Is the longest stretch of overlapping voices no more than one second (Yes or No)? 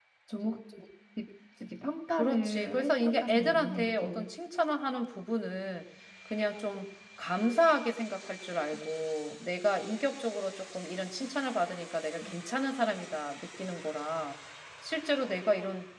No